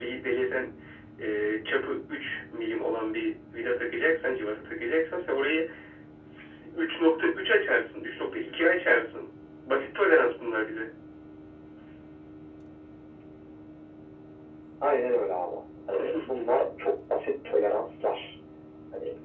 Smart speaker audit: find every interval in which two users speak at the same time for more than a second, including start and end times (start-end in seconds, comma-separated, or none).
none